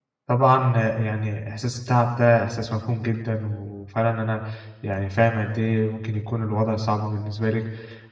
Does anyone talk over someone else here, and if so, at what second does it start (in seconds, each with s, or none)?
none